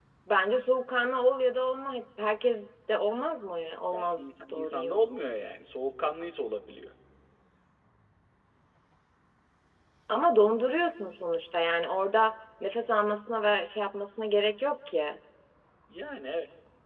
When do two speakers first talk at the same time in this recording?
3.9 s

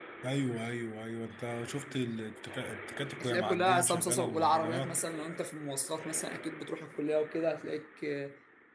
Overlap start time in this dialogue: 3.2 s

